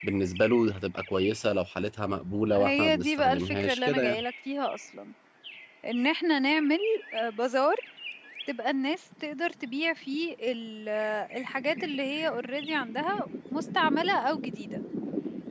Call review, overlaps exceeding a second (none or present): present